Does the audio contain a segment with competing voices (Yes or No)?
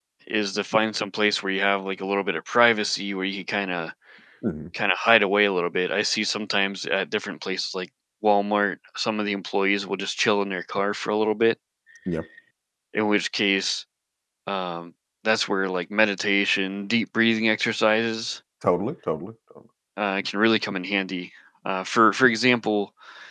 No